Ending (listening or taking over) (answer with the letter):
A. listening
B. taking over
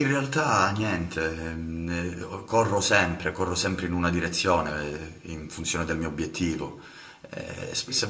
A